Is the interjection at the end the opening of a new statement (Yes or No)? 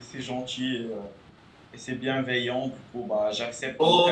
Yes